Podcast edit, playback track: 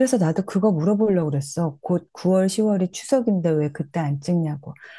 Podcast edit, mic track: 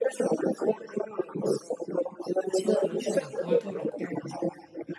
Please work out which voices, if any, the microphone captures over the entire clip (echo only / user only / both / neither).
both